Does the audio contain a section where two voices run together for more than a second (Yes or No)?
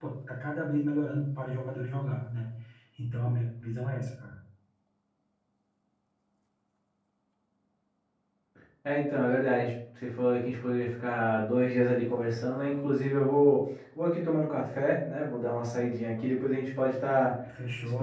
No